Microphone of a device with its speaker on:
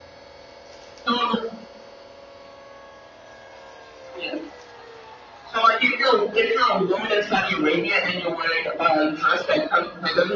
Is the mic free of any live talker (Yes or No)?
Yes